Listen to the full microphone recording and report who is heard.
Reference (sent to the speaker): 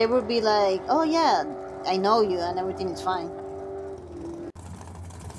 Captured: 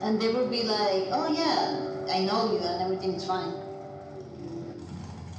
echo only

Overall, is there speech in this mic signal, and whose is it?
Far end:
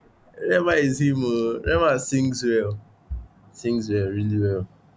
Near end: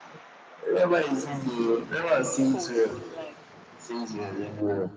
both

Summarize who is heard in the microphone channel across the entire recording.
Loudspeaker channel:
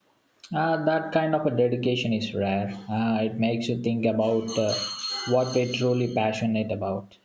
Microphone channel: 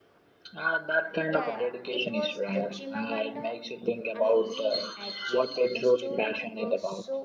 both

